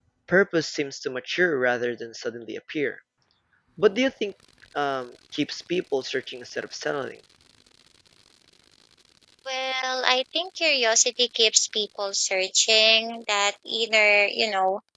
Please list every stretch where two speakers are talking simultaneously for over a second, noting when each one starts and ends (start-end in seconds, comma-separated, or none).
none